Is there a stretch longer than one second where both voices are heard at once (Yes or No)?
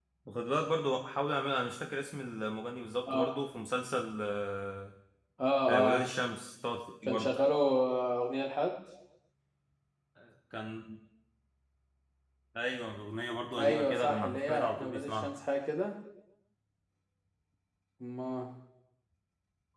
Yes